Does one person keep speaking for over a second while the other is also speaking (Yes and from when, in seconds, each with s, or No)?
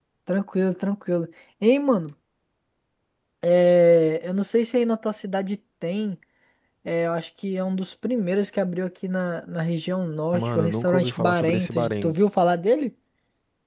Yes, from 10.3 s